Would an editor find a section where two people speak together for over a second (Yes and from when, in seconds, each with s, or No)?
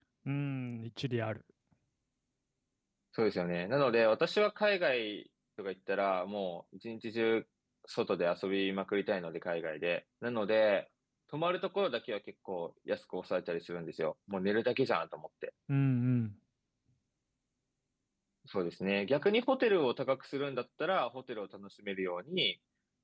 No